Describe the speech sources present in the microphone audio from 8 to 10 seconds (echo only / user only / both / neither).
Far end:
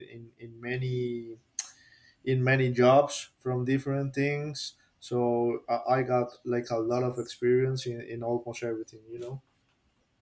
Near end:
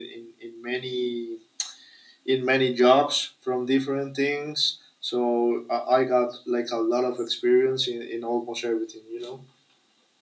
echo only